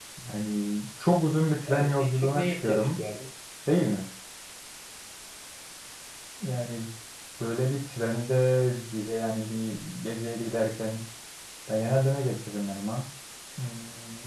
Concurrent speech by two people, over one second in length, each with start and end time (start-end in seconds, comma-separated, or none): 1.7-3.0